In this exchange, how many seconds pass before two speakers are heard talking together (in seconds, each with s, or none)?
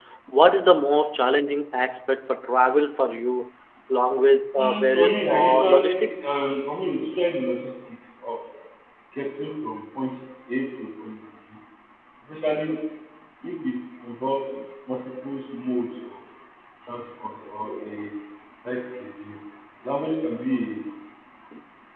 4.6 s